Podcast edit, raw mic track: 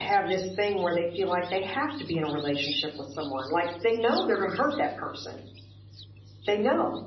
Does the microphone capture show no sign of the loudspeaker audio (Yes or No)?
No